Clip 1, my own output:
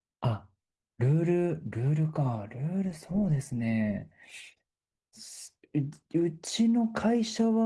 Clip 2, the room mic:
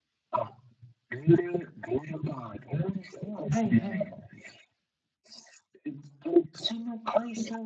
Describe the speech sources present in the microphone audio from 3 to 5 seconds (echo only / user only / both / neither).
both